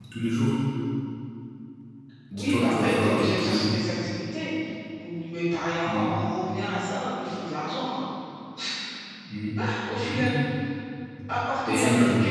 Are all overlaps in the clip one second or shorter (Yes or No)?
No